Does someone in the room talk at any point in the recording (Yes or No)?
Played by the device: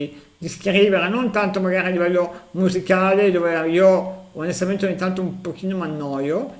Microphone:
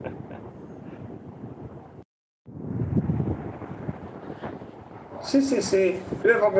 Yes